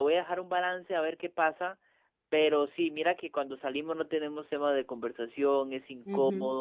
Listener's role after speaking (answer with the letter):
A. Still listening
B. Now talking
A